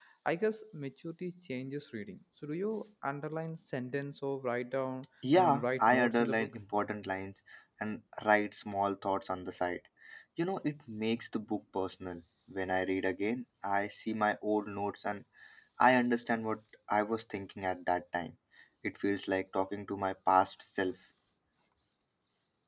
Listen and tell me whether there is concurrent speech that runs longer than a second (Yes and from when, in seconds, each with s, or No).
Yes, from 5.2 s